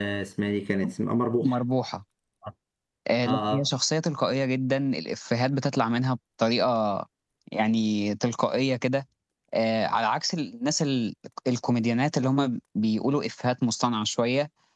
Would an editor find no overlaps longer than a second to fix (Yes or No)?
Yes